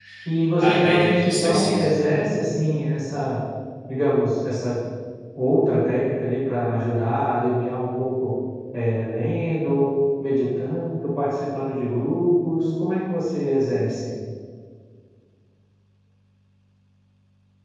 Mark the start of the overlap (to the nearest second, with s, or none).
1 s